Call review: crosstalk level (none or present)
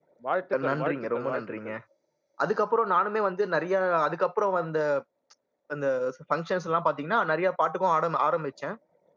present